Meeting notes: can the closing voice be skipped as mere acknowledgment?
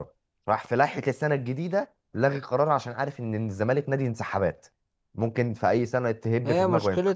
No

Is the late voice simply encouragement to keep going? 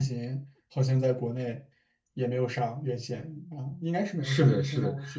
No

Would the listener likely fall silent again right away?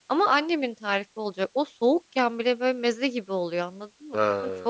Yes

